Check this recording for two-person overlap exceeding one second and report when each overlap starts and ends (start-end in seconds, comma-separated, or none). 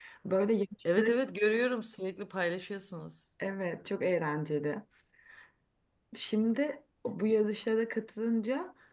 none